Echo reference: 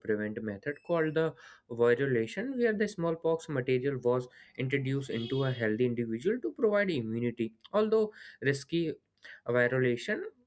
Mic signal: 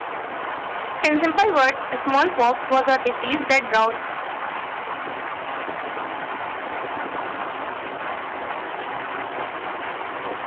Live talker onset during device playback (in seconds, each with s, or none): 1.0 s